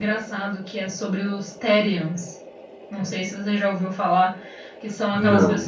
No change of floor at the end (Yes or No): Yes